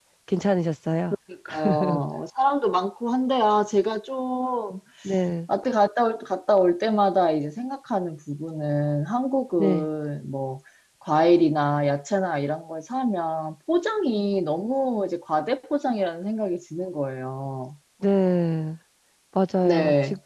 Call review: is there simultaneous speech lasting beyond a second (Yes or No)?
No